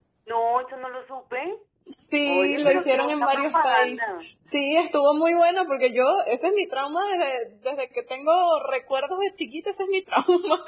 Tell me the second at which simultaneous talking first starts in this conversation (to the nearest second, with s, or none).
2 s